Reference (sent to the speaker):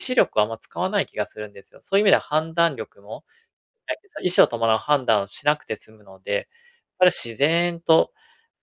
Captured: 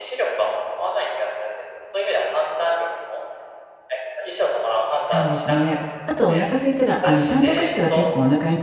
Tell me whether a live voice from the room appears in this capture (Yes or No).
Yes